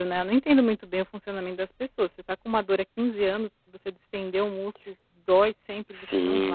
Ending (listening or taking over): taking over